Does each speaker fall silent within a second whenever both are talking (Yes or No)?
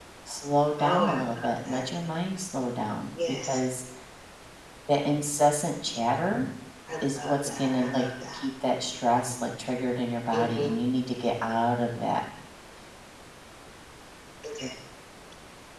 No